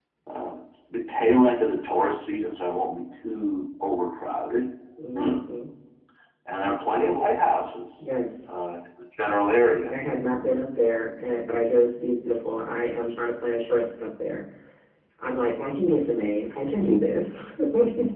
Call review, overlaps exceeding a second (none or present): none